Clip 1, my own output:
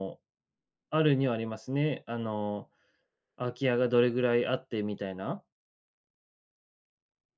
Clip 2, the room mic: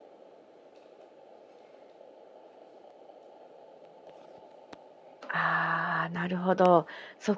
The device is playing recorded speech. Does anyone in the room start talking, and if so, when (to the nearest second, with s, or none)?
5 s